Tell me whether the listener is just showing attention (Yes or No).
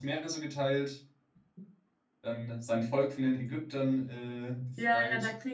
No